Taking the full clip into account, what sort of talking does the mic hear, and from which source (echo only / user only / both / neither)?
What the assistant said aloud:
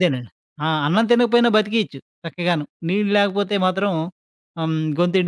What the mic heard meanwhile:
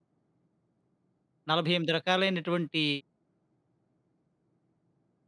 user only